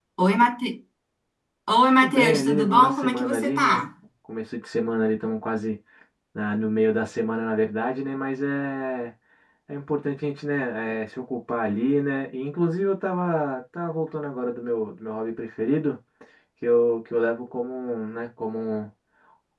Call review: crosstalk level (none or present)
present